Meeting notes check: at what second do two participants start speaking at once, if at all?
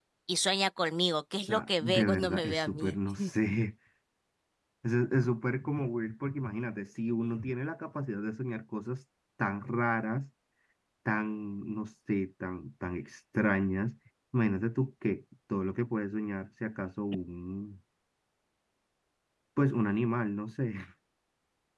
1.5 s

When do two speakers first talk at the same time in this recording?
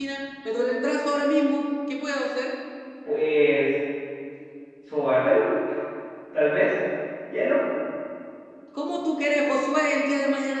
none

